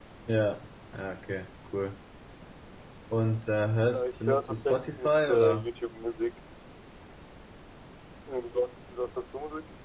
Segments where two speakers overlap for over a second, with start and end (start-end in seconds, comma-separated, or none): 3.9-5.7